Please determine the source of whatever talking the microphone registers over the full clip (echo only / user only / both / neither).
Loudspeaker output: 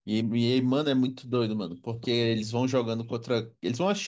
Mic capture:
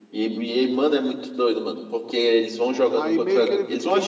both